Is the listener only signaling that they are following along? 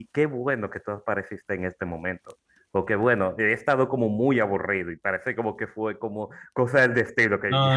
No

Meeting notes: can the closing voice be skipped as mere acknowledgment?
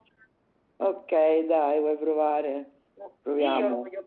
No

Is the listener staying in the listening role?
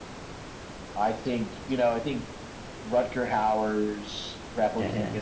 Yes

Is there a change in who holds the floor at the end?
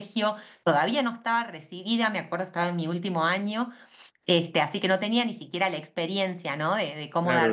Yes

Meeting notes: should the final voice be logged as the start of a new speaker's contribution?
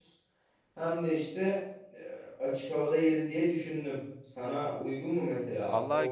Yes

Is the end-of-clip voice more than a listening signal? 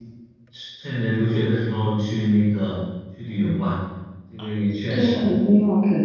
Yes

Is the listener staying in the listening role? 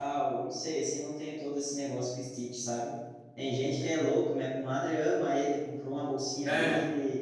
Yes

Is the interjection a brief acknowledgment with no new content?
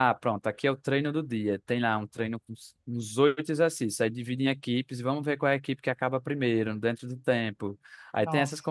Yes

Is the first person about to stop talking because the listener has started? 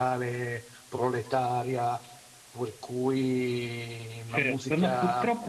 Yes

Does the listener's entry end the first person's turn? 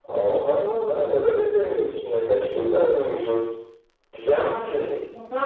Yes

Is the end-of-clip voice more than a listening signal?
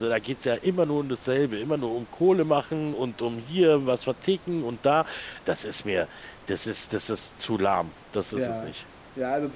Yes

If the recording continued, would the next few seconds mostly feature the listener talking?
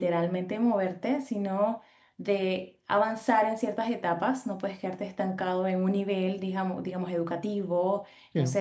No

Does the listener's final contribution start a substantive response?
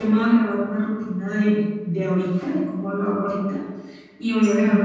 No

